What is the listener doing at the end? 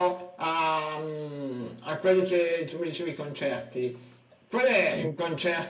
listening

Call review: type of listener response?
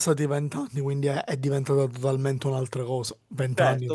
taking over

